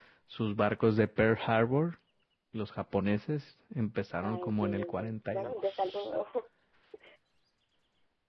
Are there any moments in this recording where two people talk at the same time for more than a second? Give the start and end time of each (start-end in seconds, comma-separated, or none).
4.2-6.1